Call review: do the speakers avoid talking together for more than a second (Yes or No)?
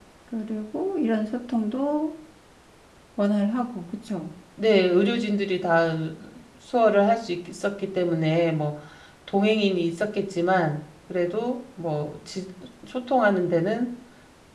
Yes